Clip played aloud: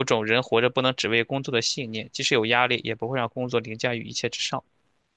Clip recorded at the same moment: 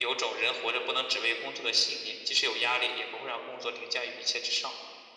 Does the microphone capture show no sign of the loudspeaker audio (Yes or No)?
No